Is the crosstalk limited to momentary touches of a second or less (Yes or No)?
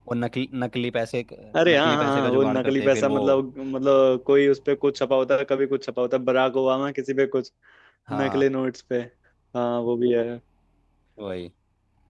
No